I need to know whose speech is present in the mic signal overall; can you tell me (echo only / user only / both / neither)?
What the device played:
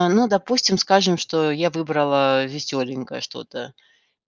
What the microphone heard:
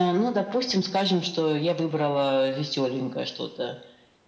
echo only